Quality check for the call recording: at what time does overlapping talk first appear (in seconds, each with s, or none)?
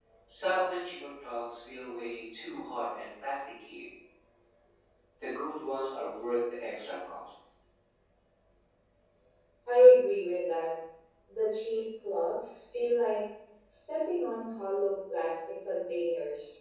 none